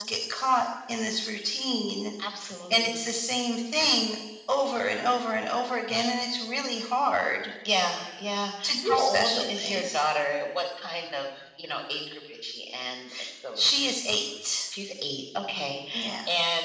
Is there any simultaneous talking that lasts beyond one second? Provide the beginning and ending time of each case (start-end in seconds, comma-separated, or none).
8.6-10.0